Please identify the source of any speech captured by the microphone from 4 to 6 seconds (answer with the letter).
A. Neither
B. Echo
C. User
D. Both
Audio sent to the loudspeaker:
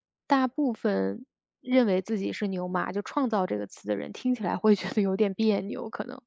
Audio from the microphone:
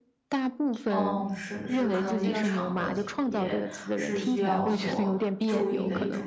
D